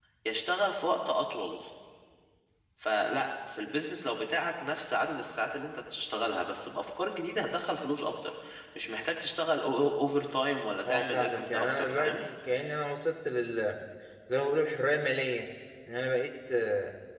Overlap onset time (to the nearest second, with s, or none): 11 s